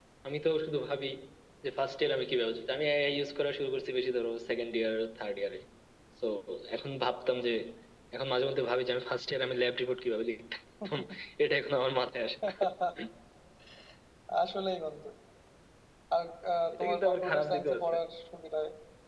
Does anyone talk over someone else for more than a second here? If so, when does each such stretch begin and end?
16.7-17.9

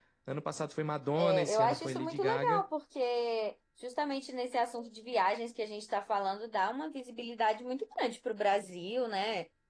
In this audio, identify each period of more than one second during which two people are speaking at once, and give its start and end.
1.2-2.6

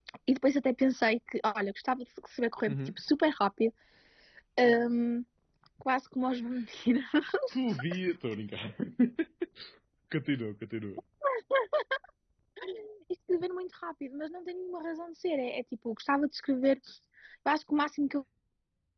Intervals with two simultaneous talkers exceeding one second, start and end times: none

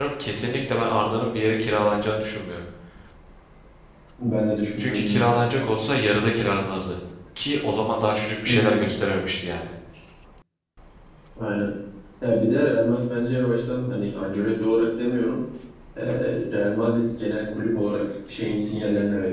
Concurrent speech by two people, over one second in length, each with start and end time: none

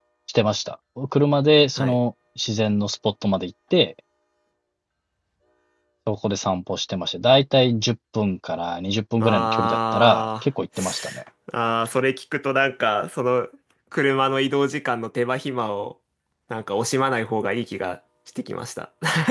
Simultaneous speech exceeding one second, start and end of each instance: 9.2-10.4

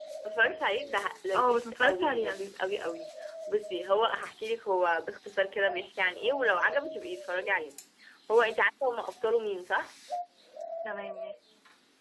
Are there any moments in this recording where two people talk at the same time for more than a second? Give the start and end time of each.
1.3-2.6

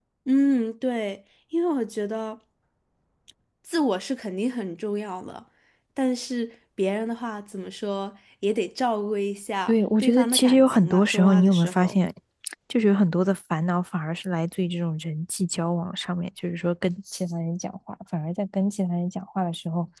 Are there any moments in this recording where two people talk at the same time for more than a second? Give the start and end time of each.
9.7-12.0

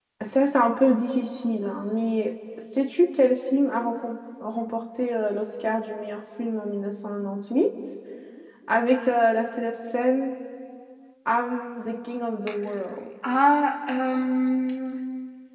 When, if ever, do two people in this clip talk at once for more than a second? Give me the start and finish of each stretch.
none

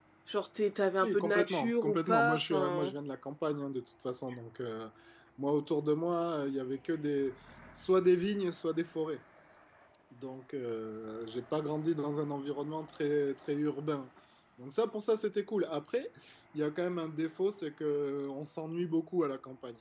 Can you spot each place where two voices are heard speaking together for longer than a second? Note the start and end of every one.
1.0-2.9

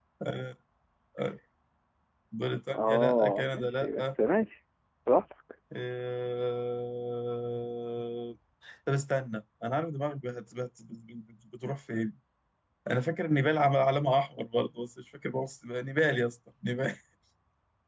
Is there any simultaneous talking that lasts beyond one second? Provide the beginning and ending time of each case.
2.7-4.2

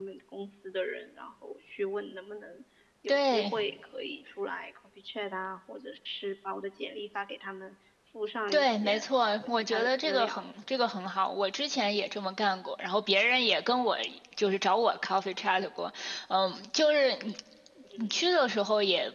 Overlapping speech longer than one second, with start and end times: 8.5-10.5

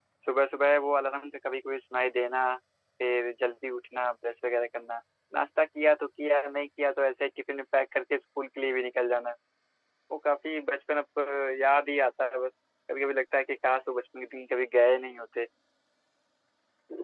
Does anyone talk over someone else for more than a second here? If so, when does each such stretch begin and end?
none

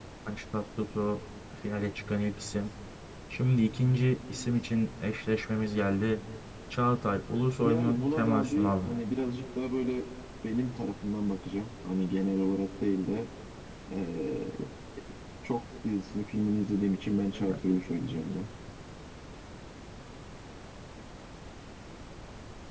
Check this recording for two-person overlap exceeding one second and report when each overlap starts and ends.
7.6-8.9

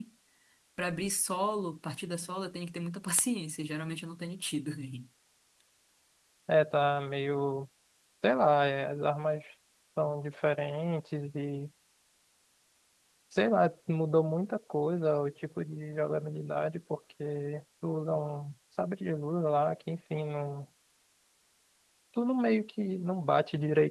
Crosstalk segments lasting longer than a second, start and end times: none

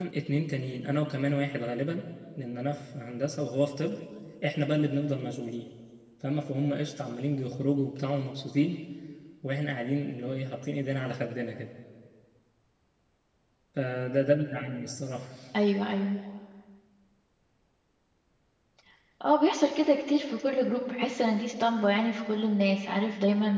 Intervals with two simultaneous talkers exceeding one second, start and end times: none

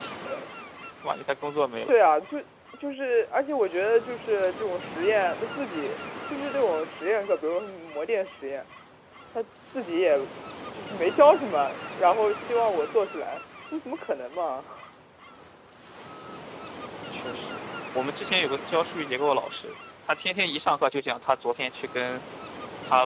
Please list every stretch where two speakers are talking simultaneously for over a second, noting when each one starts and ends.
none

